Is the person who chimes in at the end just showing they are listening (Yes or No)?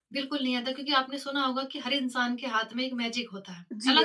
No